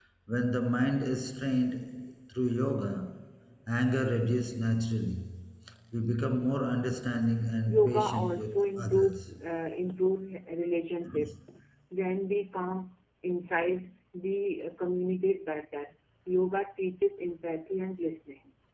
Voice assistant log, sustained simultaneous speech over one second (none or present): present